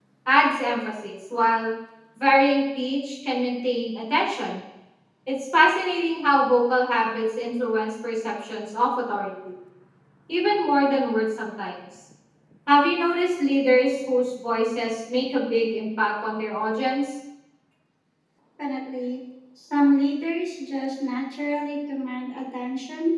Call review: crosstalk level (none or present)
none